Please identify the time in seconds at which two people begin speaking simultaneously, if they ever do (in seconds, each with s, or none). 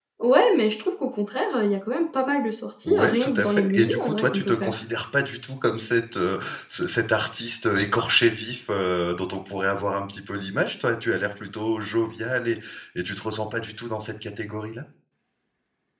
2.8 s